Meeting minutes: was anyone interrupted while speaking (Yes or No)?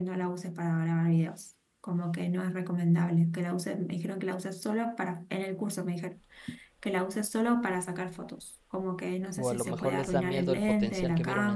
Yes